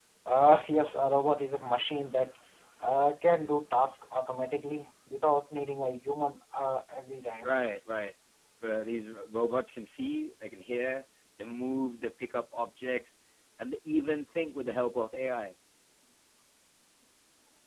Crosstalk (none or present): none